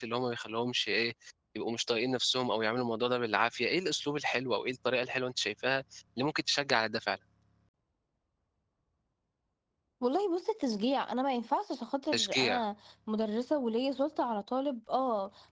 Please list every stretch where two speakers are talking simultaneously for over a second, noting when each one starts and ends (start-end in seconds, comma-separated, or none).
none